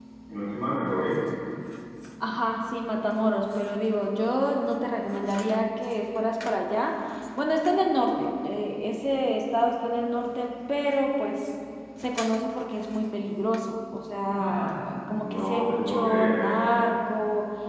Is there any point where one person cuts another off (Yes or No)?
Yes